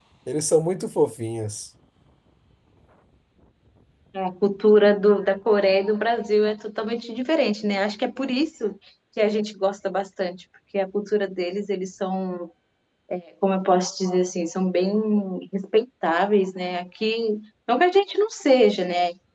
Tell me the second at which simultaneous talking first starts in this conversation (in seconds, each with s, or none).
none